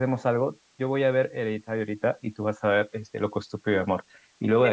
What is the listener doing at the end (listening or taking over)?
listening